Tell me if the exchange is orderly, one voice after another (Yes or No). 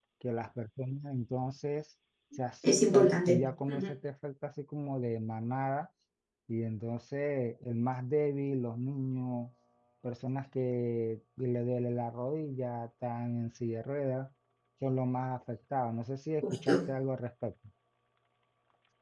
No